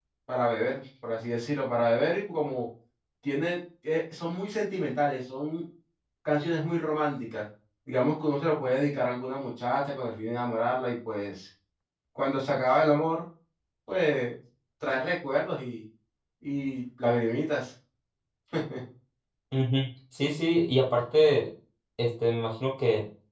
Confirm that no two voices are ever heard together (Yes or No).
Yes